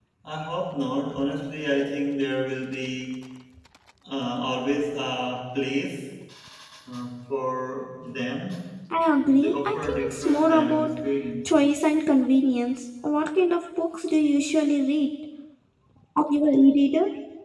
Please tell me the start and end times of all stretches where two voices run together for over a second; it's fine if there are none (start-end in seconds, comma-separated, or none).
9.4-10.9